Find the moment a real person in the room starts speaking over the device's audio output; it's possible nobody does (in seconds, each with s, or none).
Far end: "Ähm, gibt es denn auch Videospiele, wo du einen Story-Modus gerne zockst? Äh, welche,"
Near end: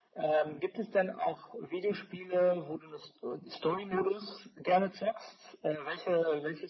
none